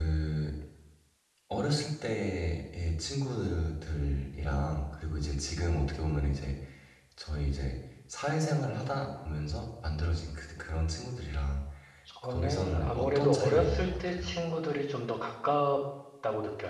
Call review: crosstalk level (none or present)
present